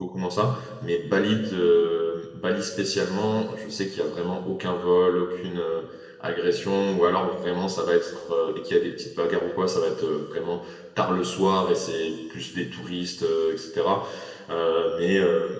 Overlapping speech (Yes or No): No